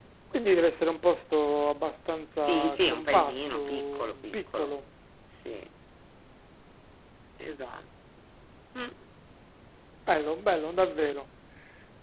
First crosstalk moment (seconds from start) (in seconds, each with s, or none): 2.3 s